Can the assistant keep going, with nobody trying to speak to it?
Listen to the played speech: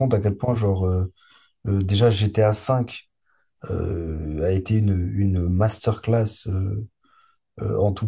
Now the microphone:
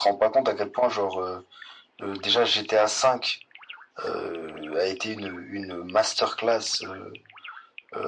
Yes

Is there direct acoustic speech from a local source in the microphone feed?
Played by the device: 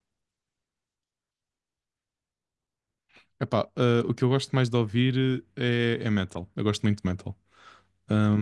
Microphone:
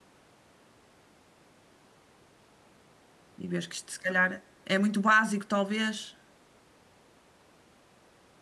Yes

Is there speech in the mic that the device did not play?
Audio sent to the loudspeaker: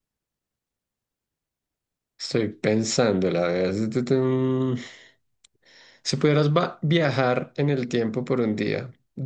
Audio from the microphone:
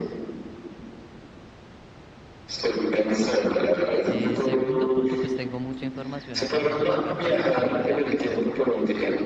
Yes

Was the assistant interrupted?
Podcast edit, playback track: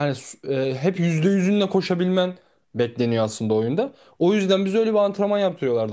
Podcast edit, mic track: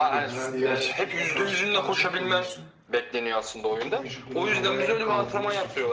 Yes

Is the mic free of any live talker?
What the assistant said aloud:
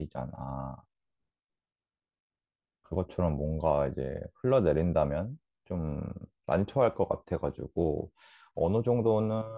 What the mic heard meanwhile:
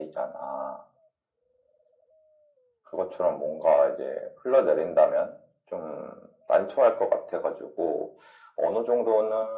Yes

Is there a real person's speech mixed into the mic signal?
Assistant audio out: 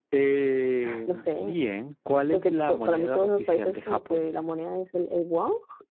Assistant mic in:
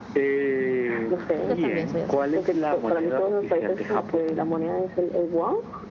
Yes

